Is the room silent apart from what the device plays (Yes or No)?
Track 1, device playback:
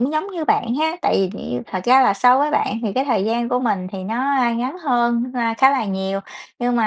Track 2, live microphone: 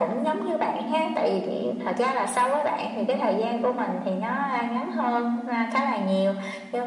Yes